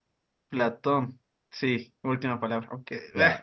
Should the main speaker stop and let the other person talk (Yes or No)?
Yes